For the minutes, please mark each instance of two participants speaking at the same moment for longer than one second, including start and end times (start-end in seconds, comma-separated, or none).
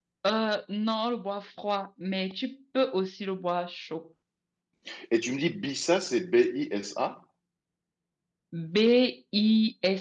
none